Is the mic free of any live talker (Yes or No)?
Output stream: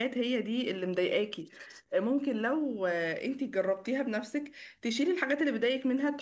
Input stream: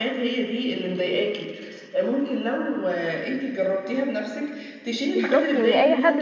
No